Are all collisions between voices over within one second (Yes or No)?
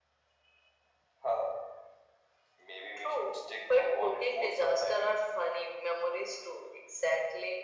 No